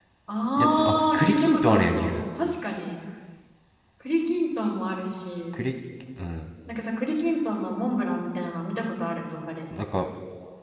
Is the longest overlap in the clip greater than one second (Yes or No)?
Yes